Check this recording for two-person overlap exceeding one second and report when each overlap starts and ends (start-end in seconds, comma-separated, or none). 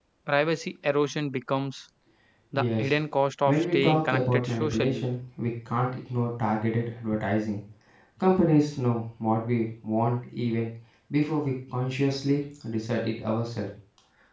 3.5-5.1